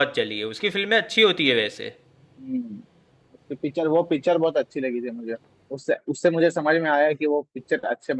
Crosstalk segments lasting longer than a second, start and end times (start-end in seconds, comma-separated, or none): none